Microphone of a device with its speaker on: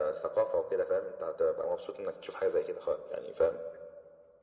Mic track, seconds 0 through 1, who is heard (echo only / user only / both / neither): echo only